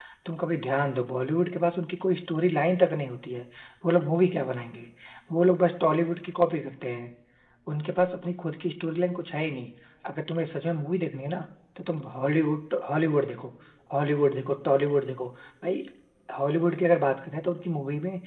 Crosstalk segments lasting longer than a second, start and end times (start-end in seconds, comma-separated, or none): none